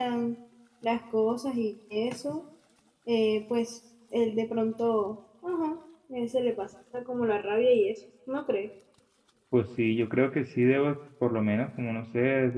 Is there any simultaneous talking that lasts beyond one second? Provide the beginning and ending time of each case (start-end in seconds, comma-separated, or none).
none